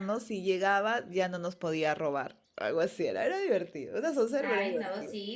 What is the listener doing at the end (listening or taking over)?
taking over